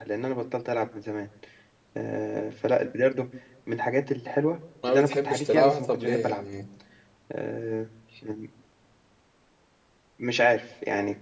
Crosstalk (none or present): present